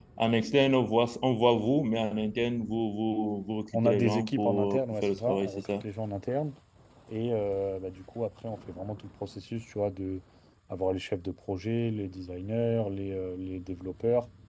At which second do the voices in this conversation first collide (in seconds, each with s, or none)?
3.7 s